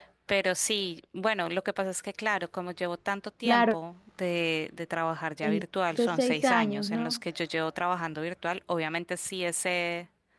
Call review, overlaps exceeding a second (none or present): present